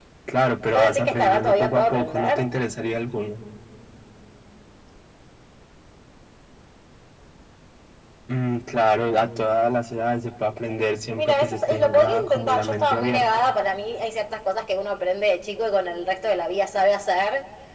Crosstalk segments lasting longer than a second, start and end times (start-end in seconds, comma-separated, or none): 0.7-2.4, 11.2-13.2